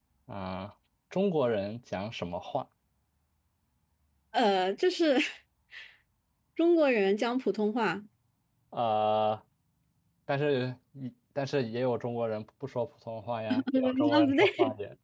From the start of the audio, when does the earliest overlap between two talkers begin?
13.5 s

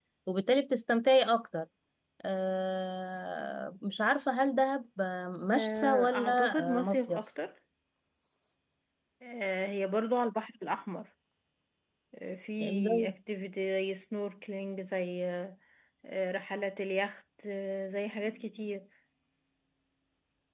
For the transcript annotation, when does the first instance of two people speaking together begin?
5.5 s

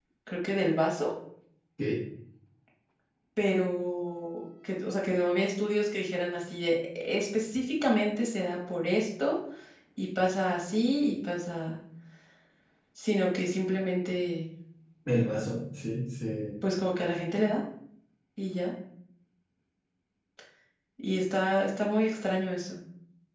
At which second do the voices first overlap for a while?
none

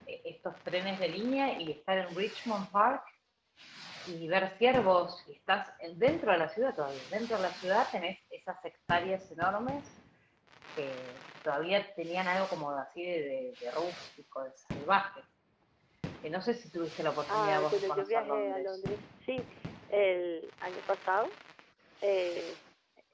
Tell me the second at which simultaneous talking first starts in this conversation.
17.3 s

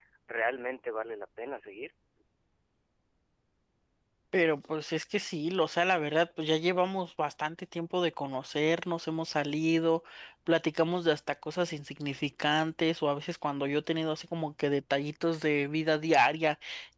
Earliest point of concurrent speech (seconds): none

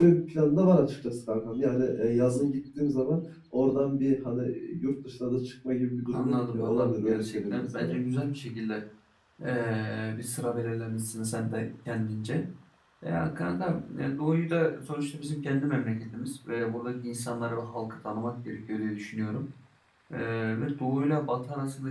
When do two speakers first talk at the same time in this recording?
6.0 s

